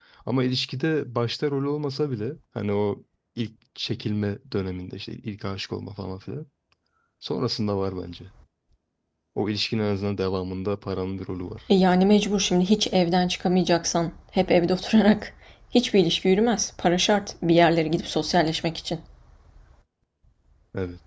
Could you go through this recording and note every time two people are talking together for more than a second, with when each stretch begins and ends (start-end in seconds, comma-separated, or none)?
none